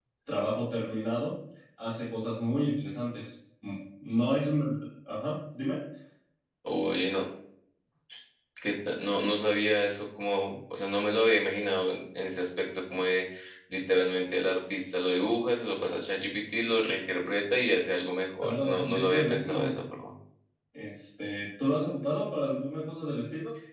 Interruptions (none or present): present